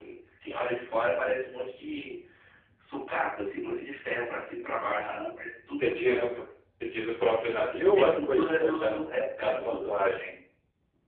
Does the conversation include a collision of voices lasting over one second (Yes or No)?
Yes